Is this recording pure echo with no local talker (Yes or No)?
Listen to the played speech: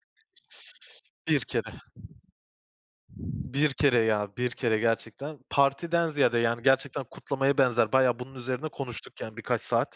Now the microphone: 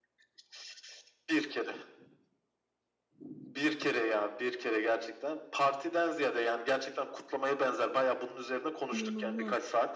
No